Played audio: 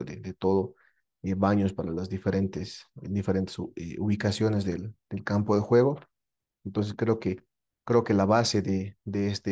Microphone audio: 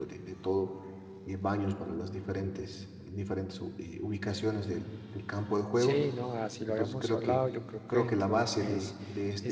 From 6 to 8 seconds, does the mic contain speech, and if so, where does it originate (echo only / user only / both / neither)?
both